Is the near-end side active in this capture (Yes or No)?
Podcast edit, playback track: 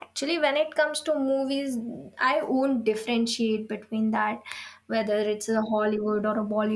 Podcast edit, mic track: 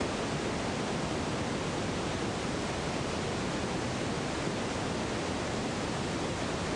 No